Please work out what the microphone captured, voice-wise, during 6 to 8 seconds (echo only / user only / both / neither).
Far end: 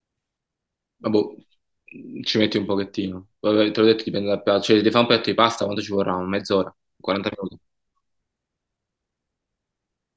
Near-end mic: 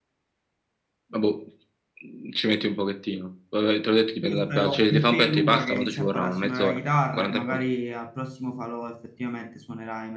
both